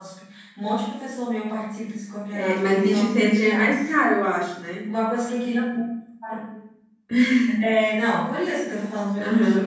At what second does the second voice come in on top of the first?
2 s

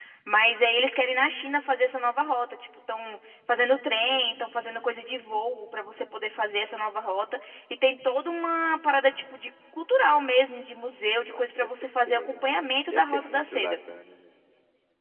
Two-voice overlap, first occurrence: 11 s

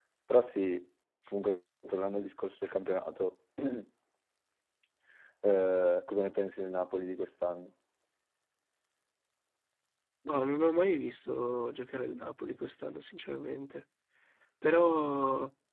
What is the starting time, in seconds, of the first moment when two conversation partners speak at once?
none

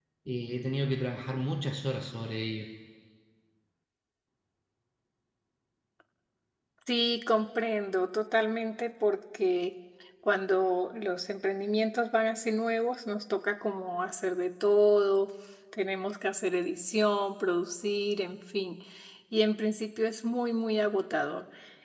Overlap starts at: none

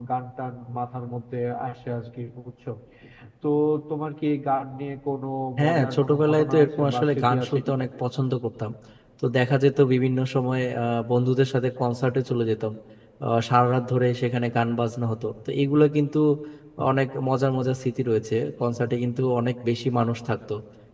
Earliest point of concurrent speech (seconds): 6 s

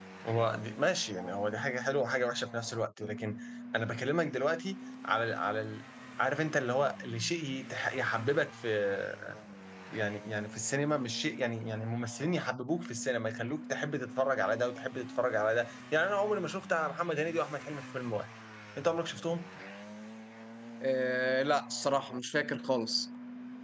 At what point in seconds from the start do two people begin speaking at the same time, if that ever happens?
none

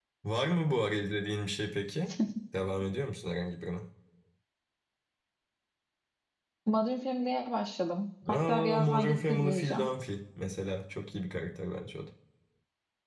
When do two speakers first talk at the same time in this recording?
8 s

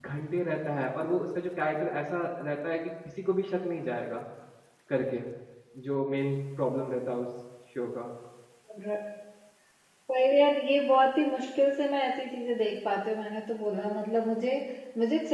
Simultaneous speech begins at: none

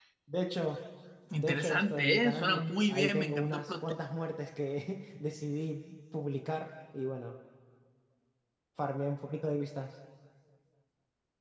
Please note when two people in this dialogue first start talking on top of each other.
1 s

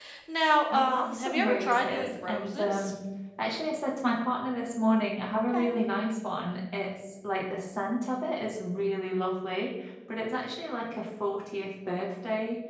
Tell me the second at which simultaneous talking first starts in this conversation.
1 s

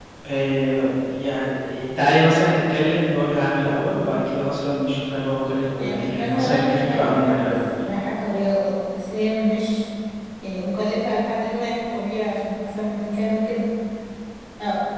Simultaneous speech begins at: 6 s

